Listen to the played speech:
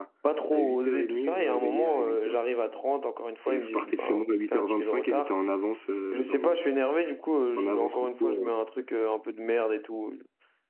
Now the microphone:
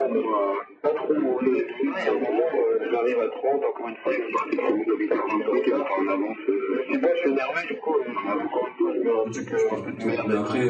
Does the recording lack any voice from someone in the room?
No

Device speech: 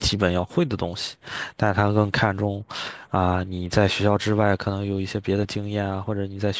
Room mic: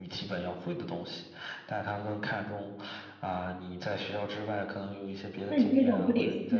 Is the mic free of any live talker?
No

